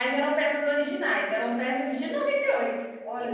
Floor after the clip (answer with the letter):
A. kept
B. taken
A